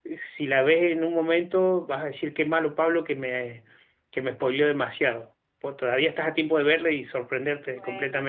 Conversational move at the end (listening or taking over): taking over